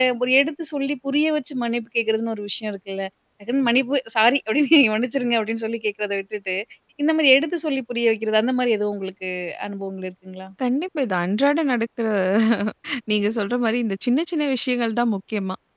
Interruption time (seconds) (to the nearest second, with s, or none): none